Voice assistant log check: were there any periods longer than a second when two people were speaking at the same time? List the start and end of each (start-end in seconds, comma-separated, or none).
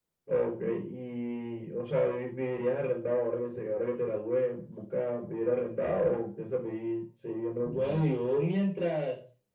none